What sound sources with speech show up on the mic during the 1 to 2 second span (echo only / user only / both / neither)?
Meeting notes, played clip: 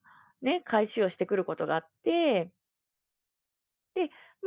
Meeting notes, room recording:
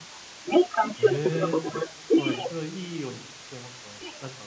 both